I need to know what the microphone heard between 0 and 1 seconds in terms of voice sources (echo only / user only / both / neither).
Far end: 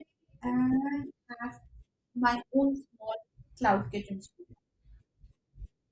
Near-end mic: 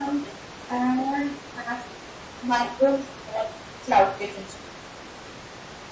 echo only